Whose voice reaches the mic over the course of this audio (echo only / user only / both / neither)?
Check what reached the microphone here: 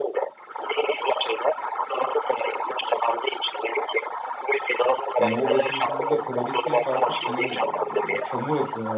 both